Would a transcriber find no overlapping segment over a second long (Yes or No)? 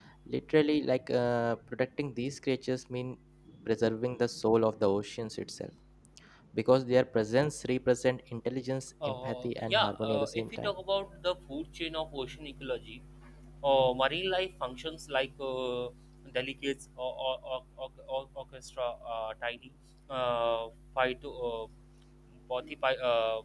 No